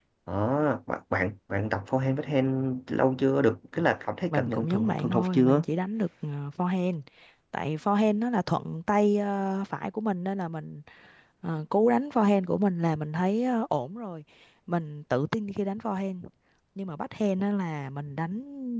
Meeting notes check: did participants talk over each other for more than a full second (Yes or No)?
Yes